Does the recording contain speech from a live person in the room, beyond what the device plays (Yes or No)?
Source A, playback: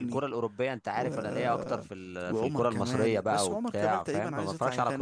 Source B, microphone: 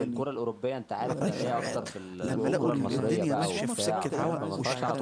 Yes